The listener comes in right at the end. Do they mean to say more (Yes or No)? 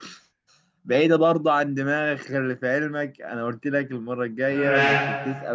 No